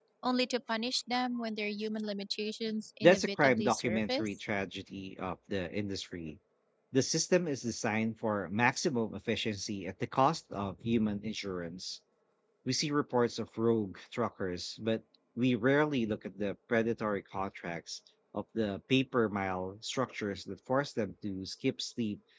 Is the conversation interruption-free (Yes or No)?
No